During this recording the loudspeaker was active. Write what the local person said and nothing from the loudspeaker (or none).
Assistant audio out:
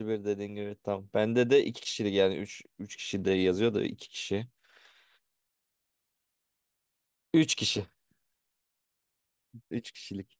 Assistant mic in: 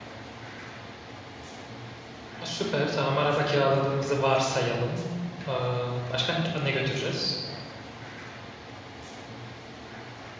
Ha, Süper tamam araba kiraladığımızı varsayalım. Aa, başka ne ne götüreceğiz?